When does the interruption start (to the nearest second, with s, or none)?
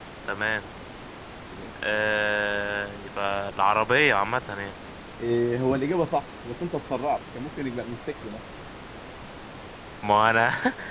none